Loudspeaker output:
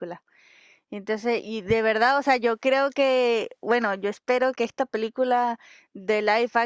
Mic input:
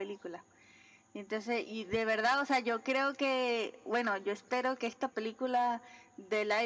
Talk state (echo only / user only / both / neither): echo only